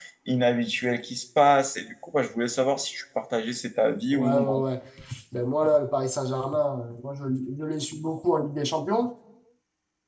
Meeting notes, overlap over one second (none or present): none